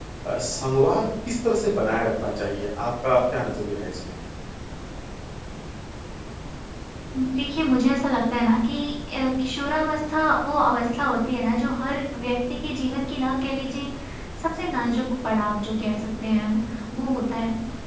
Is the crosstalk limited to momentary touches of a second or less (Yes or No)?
Yes